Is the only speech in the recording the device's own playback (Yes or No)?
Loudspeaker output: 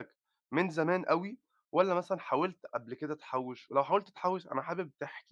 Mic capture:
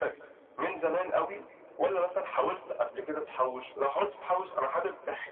Yes